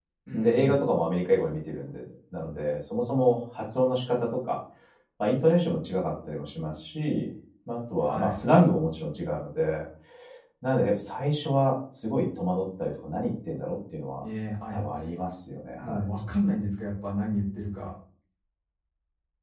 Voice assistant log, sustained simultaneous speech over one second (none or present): none